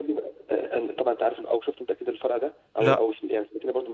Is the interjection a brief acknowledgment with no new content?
Yes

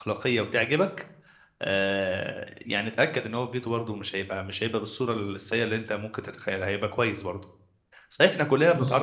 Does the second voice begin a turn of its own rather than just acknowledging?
No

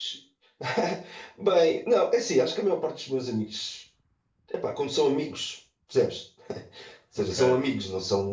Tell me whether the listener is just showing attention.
Yes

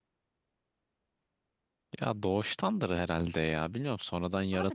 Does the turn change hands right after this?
Yes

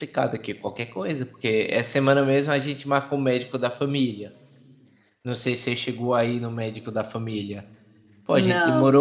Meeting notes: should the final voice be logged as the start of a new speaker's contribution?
No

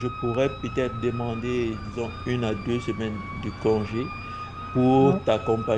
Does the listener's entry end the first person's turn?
No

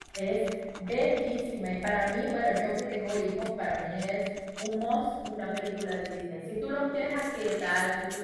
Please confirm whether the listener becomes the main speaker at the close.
No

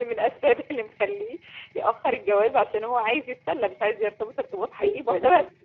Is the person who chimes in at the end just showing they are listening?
No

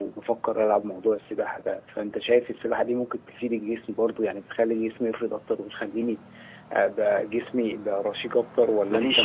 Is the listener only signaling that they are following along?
No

